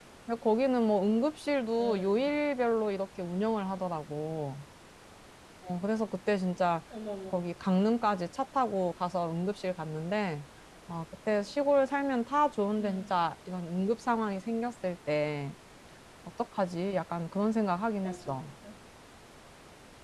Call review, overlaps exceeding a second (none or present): none